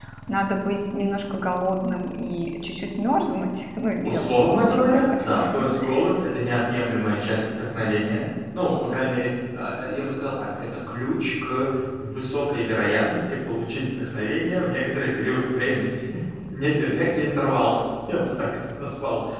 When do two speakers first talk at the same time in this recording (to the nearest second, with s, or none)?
4 s